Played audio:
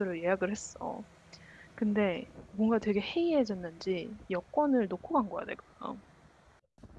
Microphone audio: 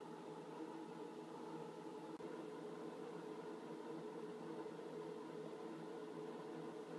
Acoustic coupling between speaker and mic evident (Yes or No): No